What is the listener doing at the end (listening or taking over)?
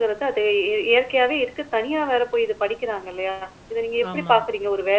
listening